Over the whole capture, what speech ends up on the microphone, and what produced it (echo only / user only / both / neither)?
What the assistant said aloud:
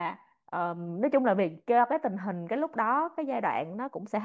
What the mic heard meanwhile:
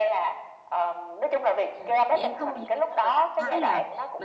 both